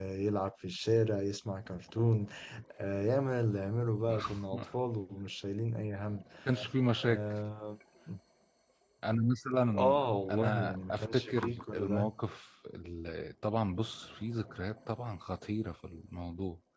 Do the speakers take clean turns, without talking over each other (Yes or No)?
No